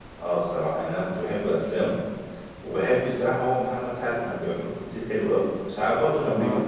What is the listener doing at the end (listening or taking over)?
listening